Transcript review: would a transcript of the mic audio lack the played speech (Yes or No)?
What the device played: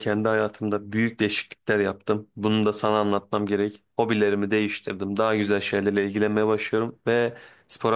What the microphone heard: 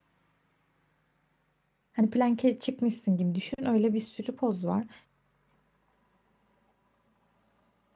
Yes